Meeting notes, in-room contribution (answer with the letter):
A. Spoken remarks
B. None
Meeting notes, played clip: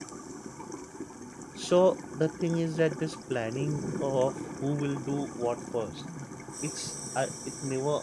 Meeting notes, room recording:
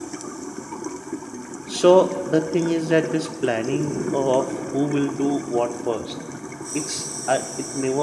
B